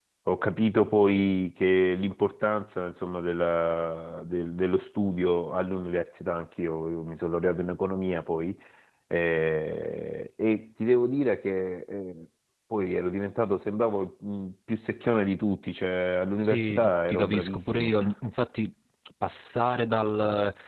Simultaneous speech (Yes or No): Yes